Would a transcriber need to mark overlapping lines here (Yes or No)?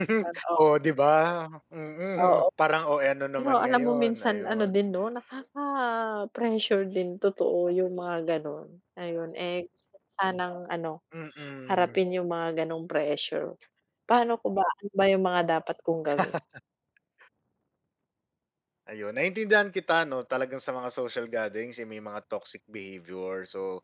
Yes